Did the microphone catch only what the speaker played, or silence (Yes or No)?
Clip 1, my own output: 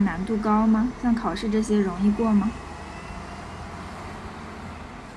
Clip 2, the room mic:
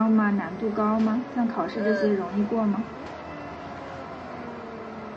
No